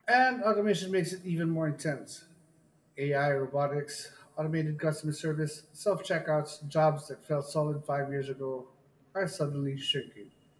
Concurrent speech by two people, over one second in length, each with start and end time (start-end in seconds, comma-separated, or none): none